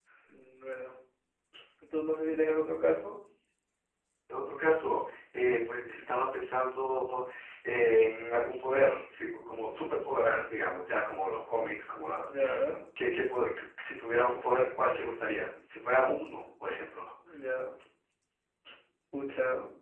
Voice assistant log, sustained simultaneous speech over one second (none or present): none